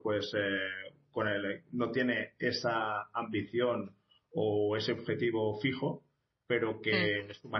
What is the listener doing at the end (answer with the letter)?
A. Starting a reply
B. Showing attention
B